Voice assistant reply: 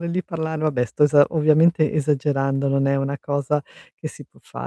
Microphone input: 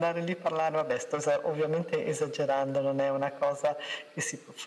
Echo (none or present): present